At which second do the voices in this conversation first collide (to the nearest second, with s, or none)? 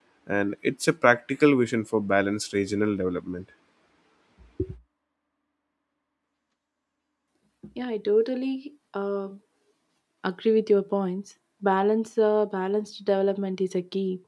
none